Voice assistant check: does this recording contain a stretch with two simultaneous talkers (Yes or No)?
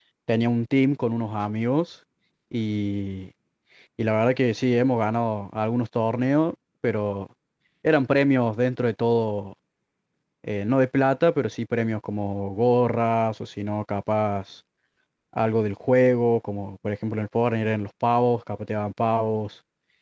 No